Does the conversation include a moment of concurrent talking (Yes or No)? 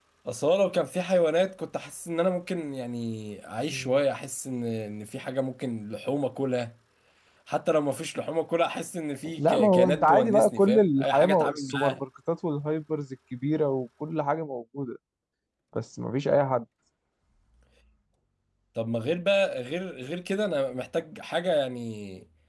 Yes